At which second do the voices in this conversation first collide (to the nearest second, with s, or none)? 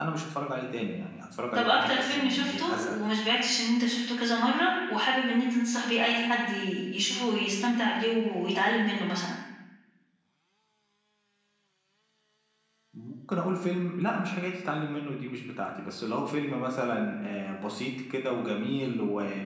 2 s